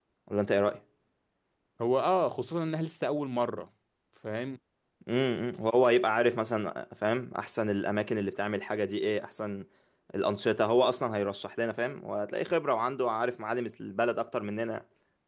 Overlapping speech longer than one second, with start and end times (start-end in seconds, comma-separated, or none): none